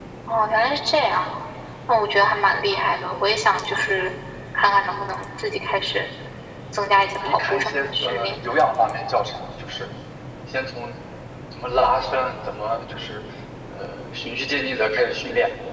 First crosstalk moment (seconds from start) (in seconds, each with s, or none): 7.0 s